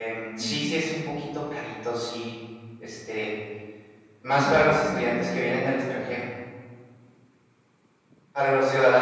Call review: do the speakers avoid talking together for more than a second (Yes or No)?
No